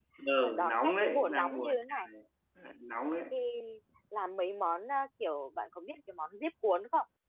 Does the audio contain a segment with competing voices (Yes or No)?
Yes